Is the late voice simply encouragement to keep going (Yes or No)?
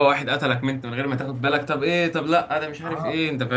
No